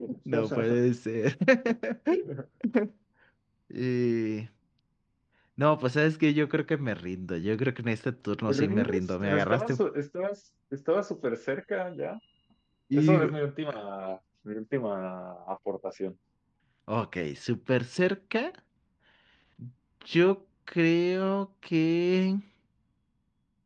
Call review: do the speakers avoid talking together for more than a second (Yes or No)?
No